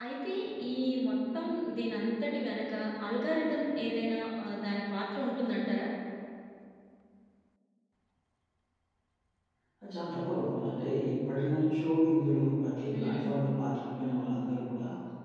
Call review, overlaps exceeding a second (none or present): none